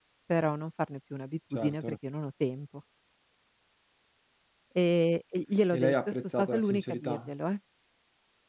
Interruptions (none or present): present